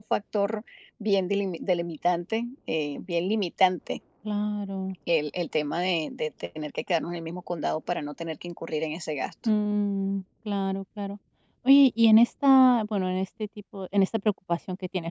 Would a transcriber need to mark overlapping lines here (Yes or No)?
No